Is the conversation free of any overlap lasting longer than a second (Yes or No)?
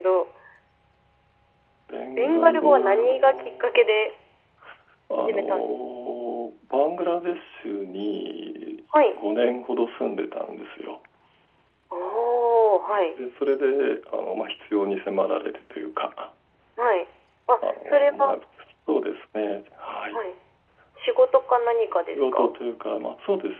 No